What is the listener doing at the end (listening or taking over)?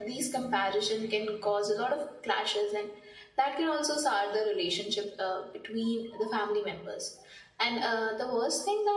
listening